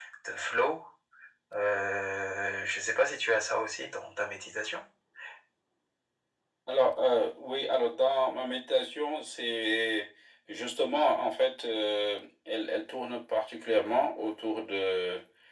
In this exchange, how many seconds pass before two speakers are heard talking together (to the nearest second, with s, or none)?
none